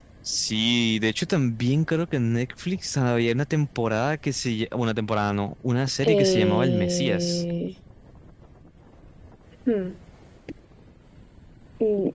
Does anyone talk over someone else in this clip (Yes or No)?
Yes